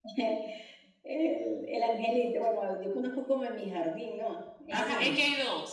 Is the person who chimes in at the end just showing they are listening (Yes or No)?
No